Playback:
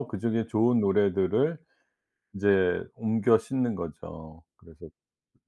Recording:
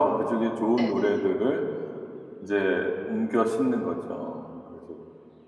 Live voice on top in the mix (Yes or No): No